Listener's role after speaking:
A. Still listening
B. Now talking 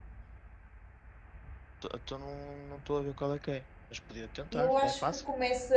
B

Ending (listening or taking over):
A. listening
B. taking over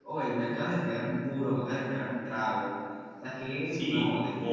B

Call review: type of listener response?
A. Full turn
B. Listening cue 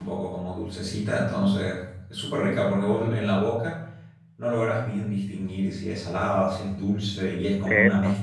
B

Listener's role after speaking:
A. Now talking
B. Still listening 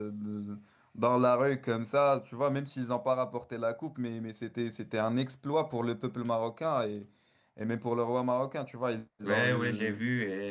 A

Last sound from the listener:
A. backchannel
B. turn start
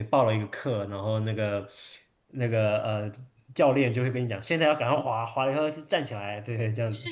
B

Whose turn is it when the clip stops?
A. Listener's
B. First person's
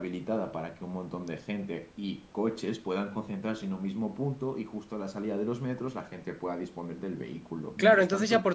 A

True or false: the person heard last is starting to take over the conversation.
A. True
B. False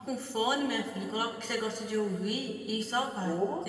A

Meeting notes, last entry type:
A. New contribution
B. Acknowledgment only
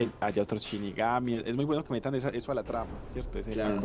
A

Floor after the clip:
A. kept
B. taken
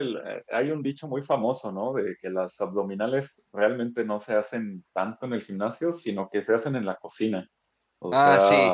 A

